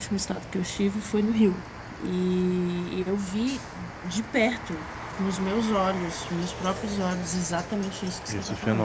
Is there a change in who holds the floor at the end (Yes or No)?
No